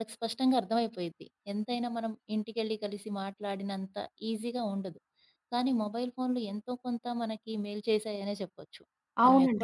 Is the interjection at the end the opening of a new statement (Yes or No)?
Yes